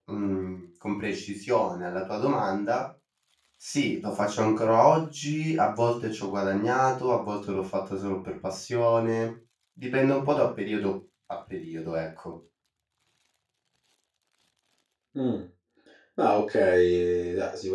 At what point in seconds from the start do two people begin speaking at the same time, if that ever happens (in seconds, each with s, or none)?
none